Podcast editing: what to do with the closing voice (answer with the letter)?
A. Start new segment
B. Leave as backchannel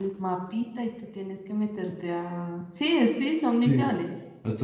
A